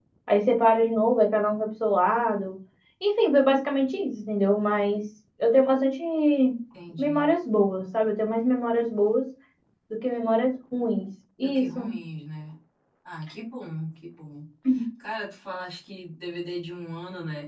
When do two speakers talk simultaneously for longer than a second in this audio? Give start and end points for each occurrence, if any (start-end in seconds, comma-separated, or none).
none